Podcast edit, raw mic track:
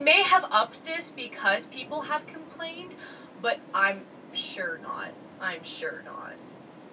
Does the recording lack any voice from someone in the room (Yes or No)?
No